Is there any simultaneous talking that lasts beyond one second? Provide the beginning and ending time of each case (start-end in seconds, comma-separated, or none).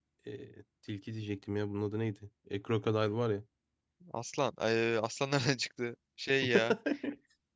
none